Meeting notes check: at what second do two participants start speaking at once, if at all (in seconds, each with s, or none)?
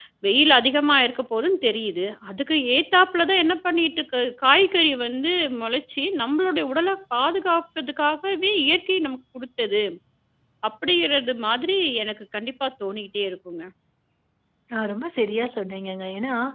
none